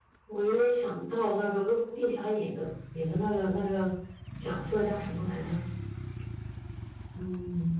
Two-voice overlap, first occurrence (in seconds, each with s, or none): none